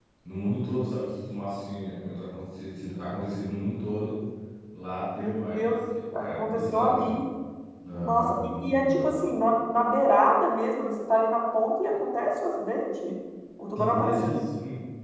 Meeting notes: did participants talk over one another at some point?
Yes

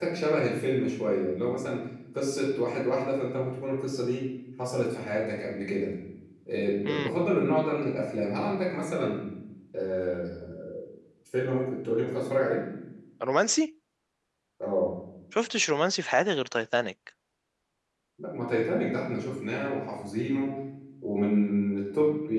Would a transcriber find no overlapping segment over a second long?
Yes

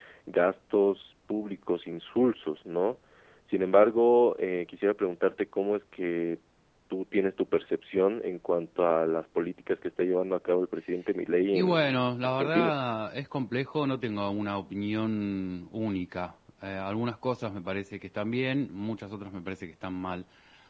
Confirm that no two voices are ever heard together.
No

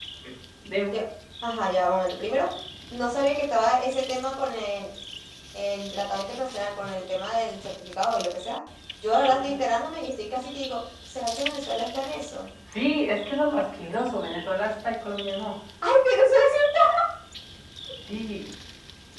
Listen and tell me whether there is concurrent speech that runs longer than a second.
No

